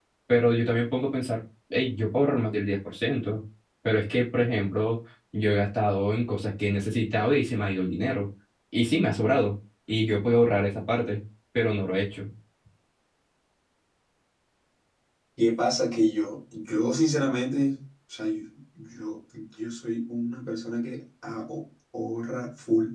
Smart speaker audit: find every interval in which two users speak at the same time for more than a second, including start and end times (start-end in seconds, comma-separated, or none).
none